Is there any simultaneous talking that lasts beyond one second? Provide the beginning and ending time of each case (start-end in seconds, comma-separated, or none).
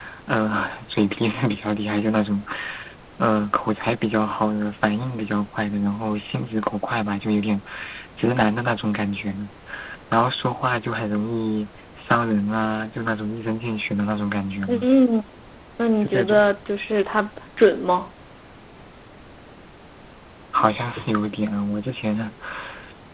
none